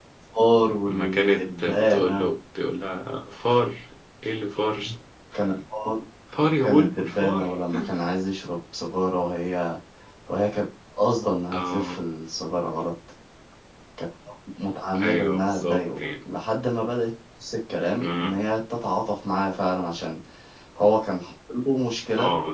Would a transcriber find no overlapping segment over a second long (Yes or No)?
No